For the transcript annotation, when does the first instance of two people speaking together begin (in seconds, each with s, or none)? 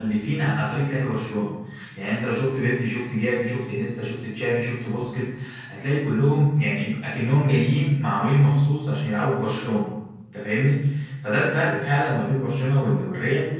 none